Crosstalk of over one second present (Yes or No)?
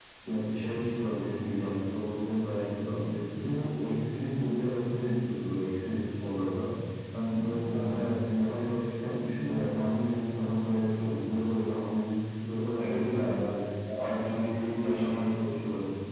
Yes